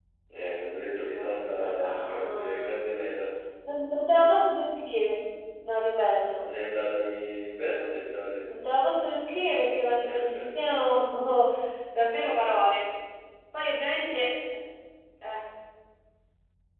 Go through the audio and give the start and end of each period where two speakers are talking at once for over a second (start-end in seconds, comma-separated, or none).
1.1-2.9